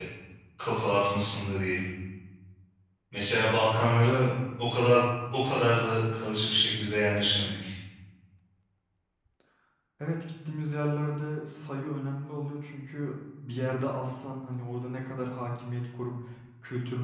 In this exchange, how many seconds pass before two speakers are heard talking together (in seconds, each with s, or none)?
none